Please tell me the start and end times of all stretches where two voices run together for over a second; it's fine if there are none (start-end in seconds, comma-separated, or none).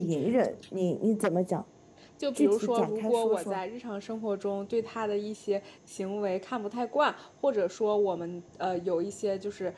2.4-3.6